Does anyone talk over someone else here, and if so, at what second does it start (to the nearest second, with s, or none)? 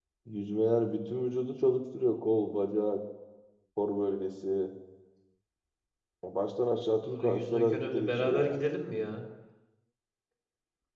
7 s